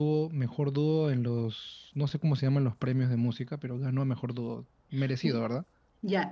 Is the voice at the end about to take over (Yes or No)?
Yes